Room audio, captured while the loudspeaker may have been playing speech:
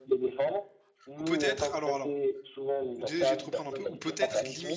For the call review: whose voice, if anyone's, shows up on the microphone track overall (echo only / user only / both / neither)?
both